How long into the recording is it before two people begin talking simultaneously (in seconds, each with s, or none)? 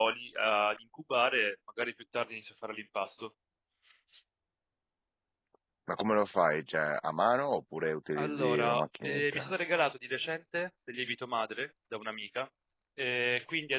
8.2 s